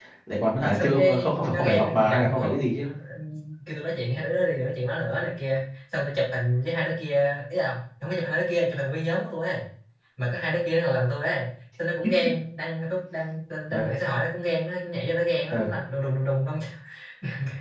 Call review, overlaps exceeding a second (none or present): present